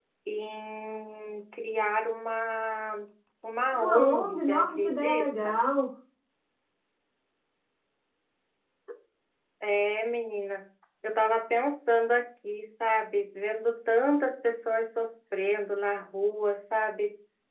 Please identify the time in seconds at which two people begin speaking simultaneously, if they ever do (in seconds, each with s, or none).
3.7 s